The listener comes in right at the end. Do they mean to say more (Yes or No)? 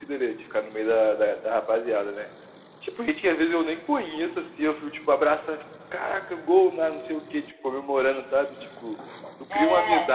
No